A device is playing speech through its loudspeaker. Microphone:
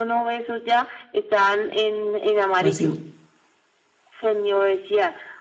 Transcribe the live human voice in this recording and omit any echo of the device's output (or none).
Más sin...